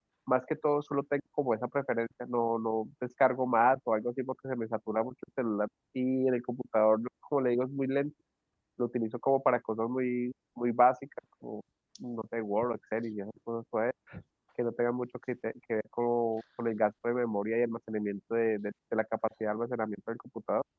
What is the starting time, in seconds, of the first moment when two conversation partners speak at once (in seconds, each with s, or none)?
none